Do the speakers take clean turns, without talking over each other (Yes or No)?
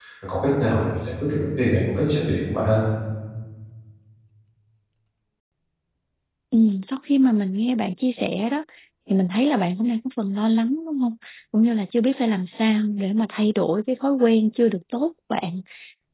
Yes